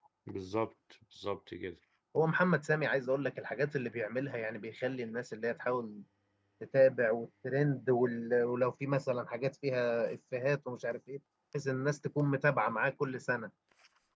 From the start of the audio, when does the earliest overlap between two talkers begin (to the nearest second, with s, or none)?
none